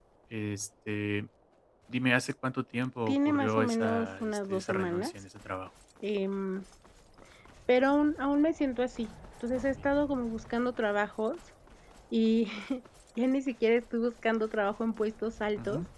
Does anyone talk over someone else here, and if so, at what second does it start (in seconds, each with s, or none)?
3.1 s